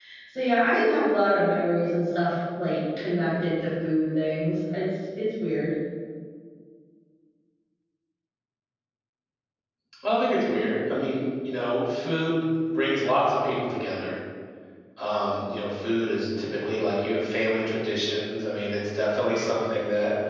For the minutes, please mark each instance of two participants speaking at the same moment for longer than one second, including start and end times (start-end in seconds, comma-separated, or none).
none